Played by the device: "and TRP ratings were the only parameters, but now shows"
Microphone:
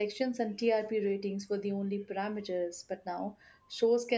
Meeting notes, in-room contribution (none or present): none